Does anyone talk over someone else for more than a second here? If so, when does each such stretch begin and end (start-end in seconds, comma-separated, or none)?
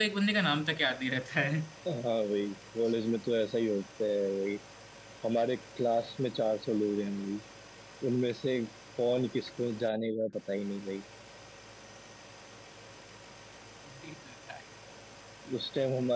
none